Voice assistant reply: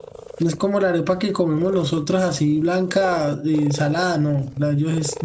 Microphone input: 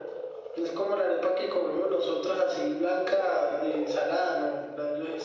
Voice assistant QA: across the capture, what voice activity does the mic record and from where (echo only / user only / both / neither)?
echo only